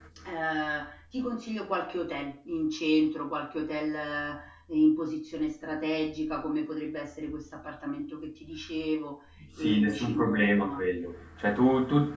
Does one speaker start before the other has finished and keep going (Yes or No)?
Yes